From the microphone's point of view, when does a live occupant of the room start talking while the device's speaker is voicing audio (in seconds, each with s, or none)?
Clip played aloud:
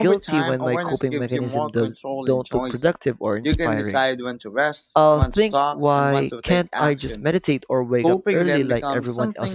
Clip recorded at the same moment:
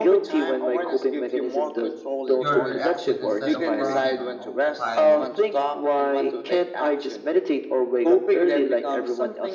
2.3 s